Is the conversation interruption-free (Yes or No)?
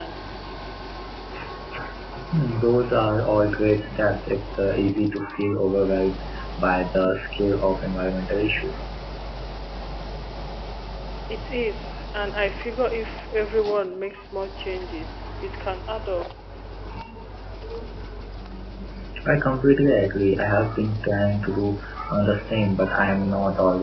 Yes